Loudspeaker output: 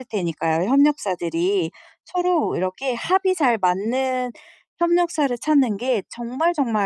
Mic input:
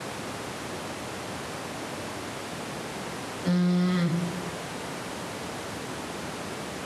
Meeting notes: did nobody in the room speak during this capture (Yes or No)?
No